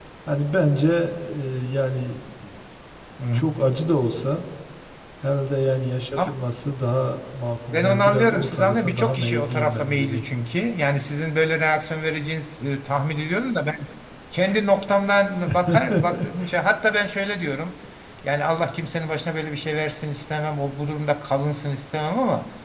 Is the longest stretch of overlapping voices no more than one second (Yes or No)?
No